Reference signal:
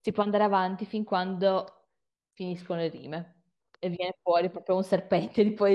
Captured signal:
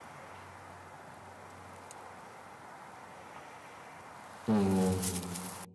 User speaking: Yes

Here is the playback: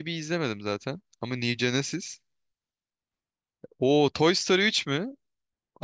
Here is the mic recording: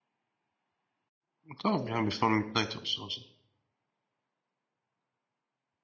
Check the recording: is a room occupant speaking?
Yes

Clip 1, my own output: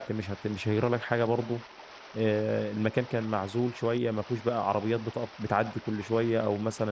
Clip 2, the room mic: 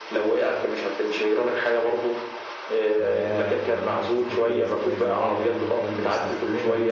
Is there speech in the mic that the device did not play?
Yes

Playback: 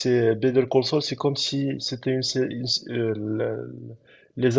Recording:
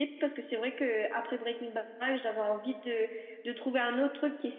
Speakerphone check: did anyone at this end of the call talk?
Yes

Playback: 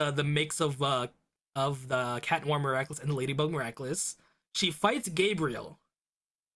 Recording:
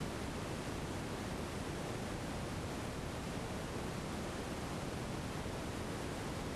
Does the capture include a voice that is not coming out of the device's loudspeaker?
No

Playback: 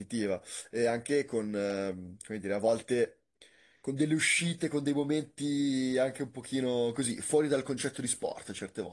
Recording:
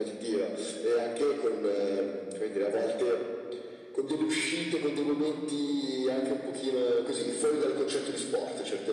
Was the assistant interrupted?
No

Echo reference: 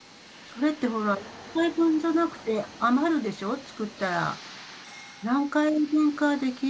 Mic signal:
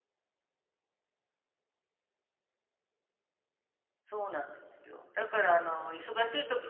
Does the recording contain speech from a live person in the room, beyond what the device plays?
Yes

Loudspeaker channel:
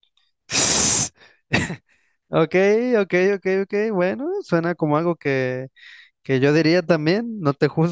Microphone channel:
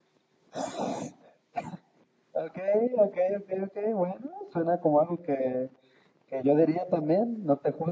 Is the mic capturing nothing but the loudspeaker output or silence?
Yes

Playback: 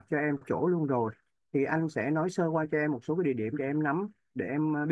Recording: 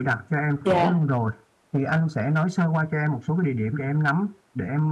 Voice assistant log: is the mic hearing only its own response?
No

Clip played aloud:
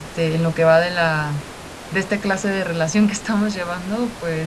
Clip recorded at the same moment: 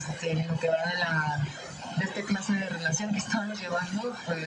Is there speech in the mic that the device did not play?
No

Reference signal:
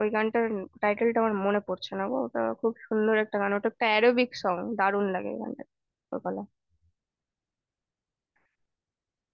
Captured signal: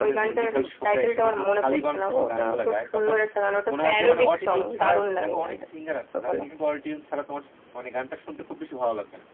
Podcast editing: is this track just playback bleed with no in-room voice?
No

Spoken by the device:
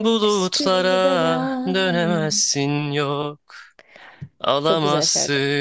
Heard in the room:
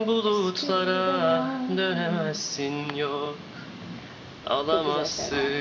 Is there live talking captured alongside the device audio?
No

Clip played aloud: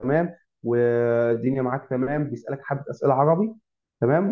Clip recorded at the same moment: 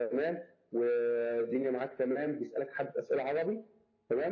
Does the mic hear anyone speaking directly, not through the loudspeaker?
No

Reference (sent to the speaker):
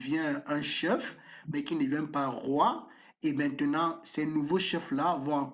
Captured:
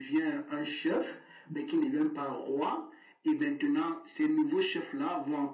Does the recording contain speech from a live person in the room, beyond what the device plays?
No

